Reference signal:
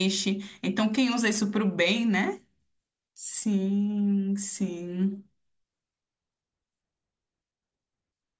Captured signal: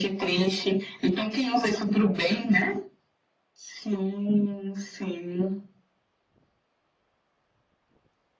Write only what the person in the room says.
none

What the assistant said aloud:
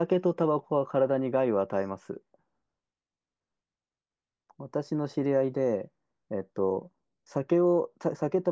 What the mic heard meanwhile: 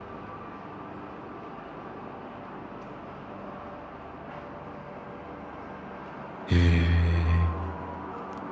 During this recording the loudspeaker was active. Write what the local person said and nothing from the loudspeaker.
え

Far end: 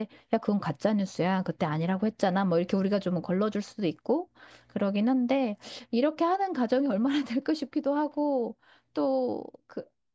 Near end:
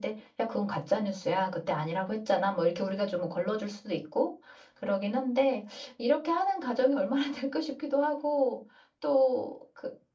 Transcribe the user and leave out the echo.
none

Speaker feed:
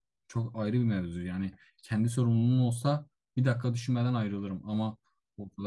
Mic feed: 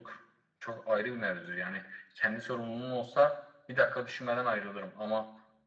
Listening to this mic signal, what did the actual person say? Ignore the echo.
none

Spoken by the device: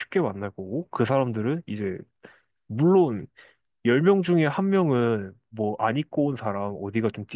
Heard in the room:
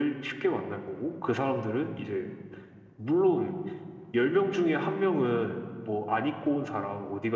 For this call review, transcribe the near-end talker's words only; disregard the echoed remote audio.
none

